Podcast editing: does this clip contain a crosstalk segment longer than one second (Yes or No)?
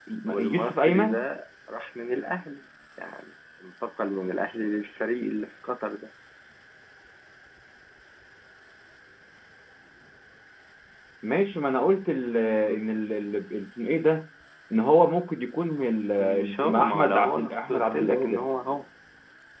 Yes